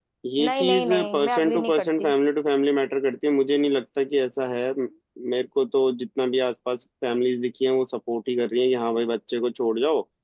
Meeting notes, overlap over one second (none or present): present